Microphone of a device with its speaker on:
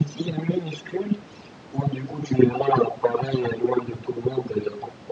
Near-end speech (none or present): none